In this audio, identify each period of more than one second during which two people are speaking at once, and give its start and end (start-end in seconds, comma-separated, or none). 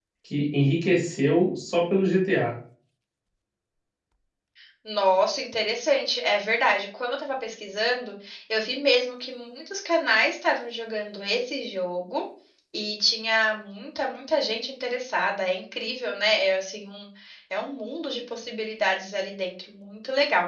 none